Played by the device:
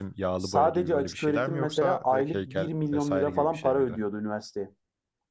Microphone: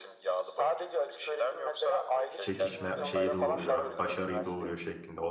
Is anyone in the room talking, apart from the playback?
Yes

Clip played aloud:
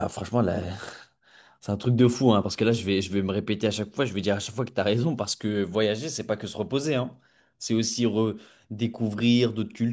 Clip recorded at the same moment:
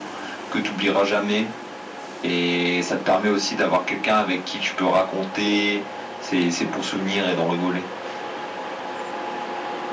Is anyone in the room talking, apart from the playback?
Yes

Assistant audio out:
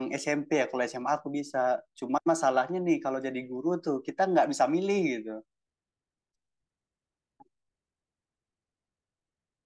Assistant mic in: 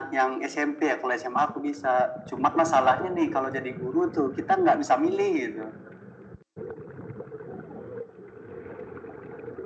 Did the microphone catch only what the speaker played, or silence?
Yes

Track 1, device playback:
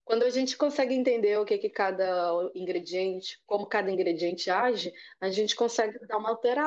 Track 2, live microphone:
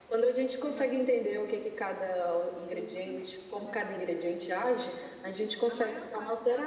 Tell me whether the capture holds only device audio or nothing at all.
No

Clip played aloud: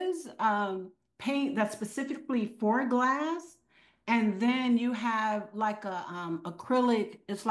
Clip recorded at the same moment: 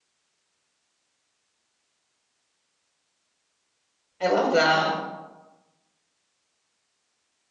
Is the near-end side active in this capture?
Yes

